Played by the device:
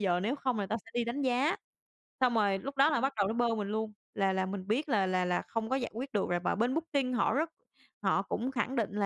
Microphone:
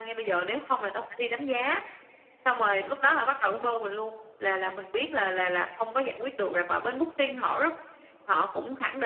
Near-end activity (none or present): none